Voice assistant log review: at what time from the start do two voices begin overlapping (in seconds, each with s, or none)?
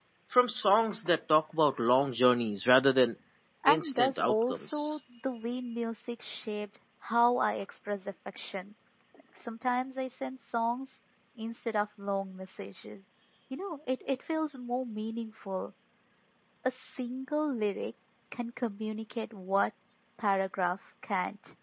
3.7 s